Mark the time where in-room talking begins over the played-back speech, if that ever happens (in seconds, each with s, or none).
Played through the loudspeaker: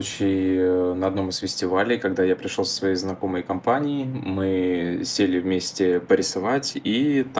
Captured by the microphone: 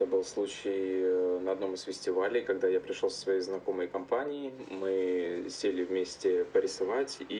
none